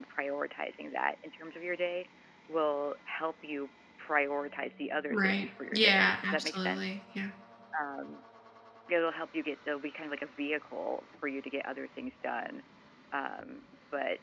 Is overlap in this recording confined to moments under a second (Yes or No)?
No